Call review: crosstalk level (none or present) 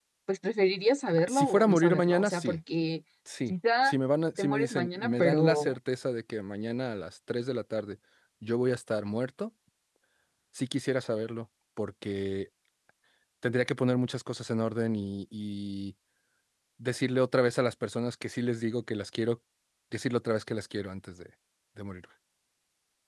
present